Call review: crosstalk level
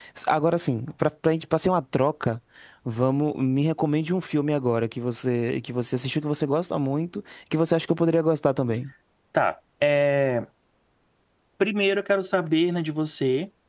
none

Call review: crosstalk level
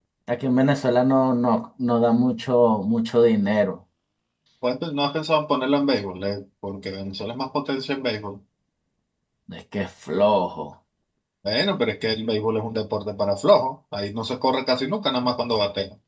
none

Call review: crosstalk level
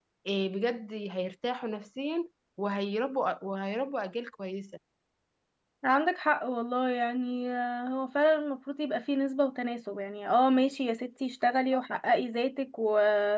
none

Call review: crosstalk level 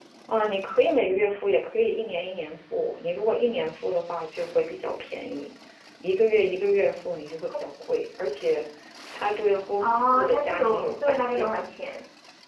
present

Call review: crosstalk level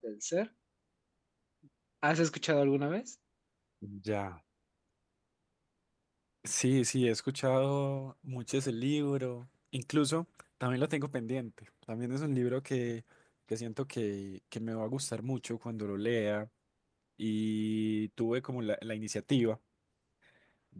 none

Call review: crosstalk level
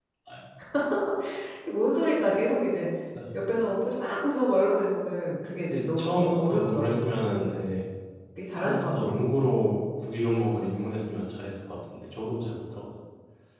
present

